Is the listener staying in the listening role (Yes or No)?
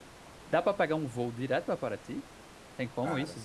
No